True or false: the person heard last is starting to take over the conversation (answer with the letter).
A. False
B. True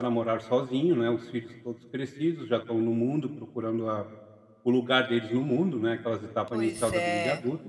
A